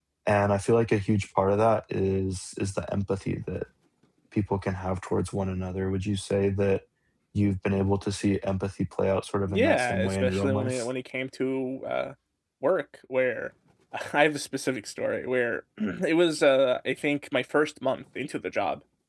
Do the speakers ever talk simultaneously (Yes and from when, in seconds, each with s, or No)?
Yes, from 9.5 s